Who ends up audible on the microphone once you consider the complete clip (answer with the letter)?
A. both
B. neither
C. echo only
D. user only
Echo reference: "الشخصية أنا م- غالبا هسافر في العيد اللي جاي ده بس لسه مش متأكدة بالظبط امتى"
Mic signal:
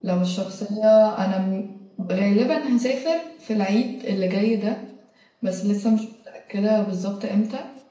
C